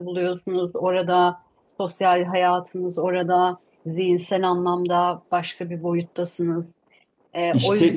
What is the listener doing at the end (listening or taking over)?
taking over